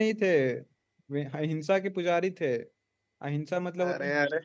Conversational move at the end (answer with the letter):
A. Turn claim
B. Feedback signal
B